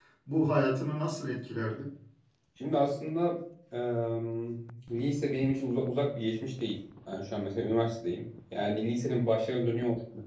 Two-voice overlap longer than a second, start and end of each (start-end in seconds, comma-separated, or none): none